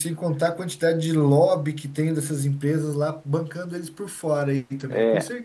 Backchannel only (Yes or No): No